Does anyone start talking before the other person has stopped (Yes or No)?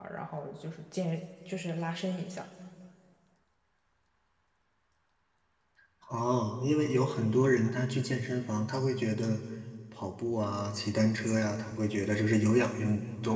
No